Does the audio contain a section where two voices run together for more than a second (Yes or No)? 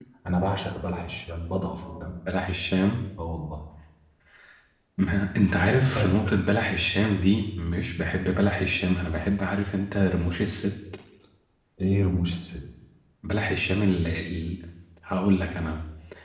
No